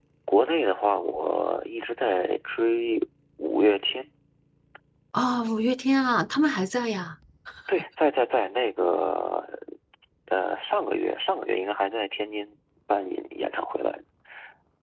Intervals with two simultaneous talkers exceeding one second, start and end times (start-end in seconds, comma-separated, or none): none